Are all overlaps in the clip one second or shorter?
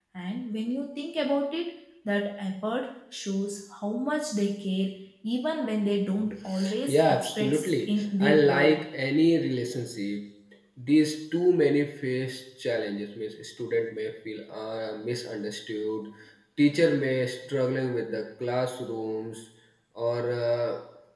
No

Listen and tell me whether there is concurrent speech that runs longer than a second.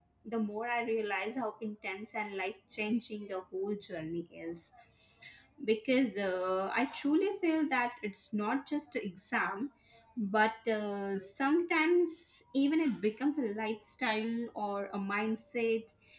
No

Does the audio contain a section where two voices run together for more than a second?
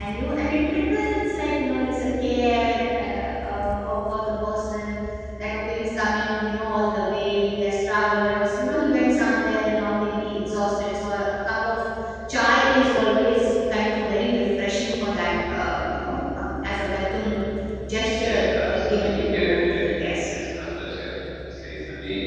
Yes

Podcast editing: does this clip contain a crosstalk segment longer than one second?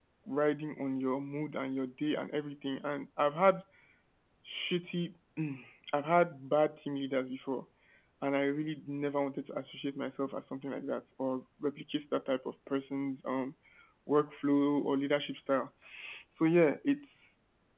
No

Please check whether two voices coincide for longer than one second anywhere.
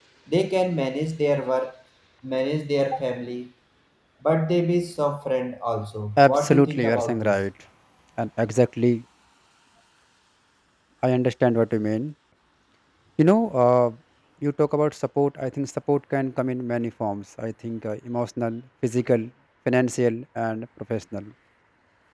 Yes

